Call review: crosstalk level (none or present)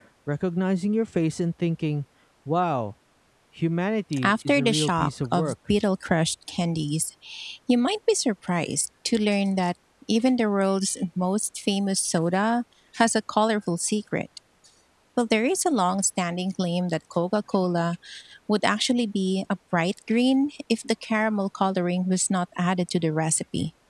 present